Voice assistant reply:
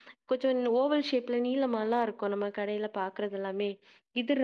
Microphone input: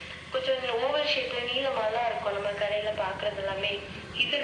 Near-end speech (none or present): none